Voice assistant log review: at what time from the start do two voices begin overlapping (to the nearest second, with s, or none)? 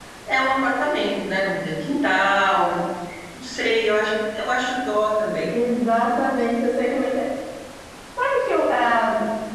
none